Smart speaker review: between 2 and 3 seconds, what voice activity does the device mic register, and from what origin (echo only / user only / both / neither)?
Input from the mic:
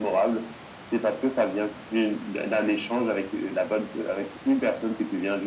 echo only